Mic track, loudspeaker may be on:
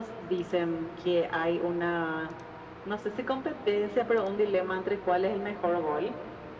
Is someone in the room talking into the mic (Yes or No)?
No